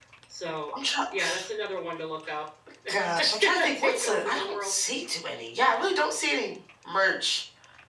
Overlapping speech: Yes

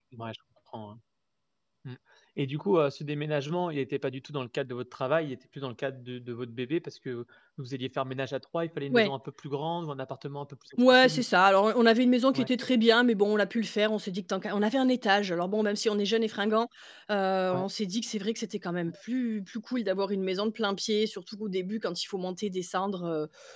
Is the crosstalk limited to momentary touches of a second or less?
Yes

